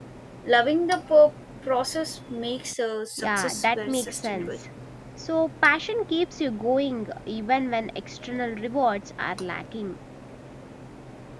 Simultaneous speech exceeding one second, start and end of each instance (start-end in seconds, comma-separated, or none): 3.2-4.5